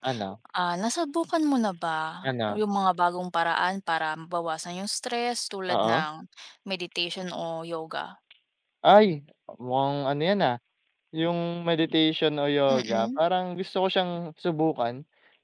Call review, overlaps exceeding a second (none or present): none